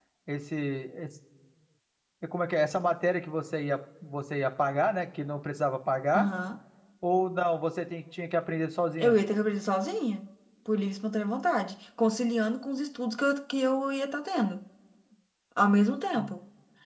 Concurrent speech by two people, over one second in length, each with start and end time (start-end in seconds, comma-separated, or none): none